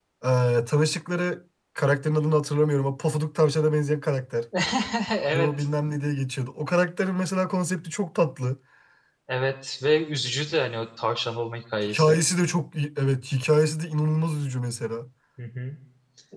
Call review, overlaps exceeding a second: none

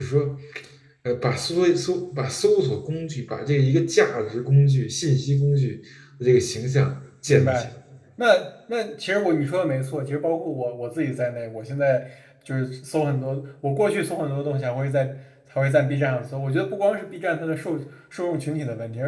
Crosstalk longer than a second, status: none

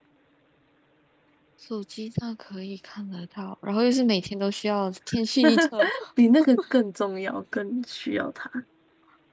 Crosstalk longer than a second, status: none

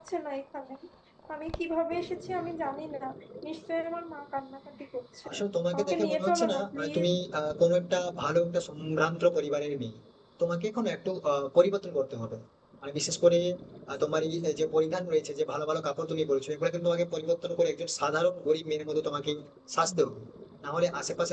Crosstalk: present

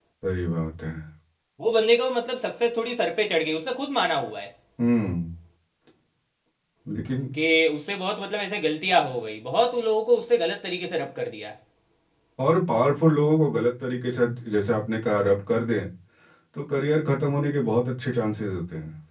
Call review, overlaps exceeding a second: none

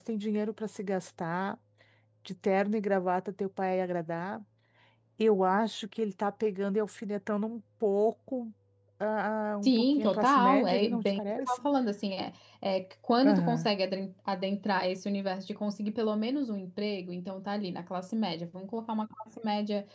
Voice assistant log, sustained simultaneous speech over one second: present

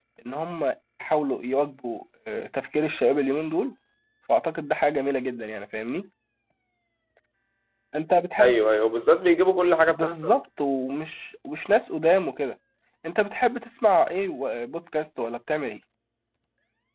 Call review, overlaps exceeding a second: none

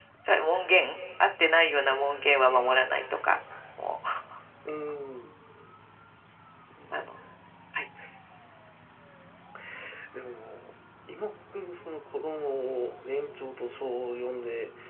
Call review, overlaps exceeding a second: none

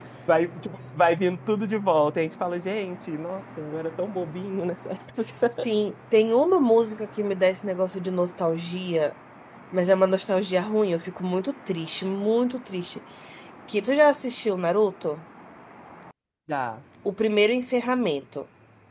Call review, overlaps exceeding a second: none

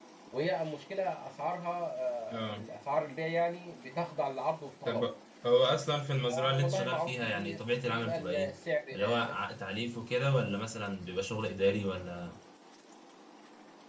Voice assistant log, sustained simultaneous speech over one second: present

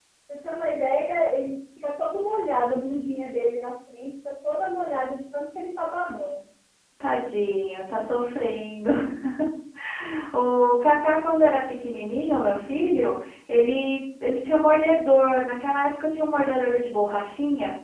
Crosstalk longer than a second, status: none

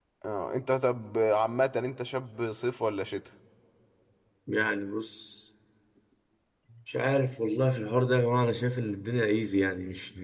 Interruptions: none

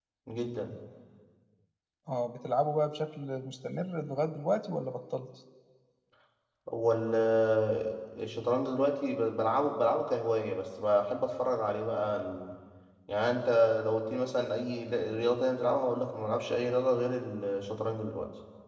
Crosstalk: none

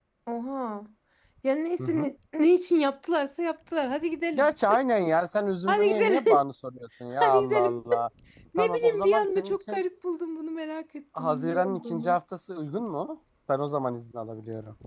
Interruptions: present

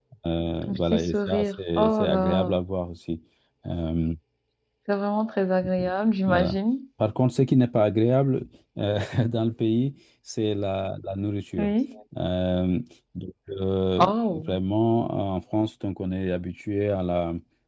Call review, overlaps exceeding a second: present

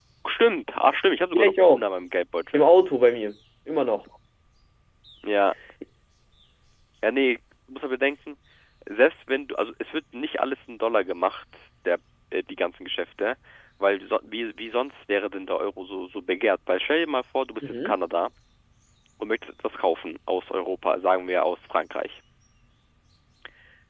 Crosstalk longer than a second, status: none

